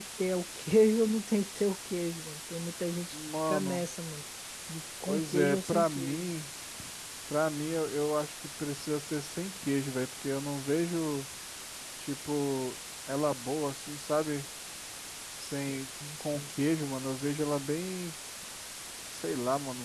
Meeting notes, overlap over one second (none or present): present